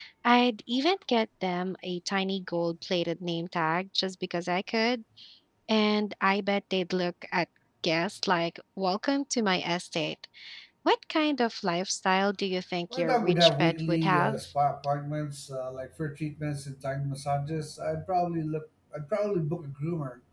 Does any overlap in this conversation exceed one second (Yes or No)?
Yes